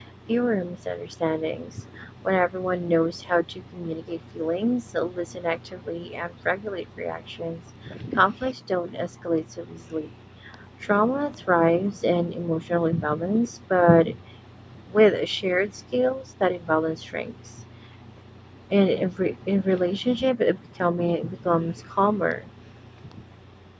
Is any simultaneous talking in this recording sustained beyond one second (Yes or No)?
No